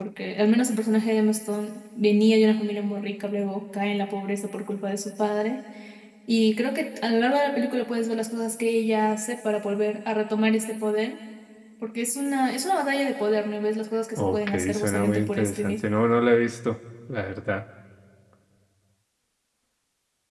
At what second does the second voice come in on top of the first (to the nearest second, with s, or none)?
14 s